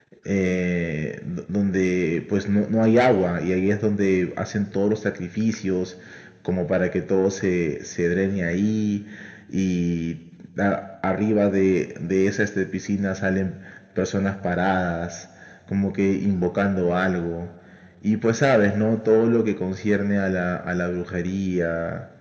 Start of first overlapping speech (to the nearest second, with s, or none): none